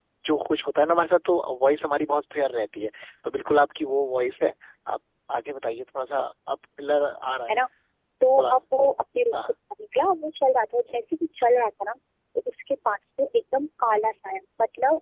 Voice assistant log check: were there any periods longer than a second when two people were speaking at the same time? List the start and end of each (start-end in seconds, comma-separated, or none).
none